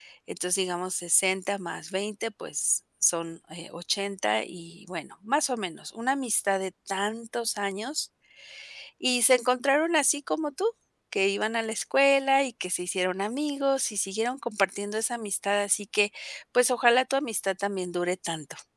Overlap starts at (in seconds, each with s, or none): none